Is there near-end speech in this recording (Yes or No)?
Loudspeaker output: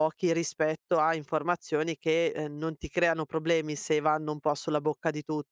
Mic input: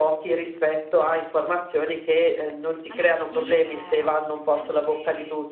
Yes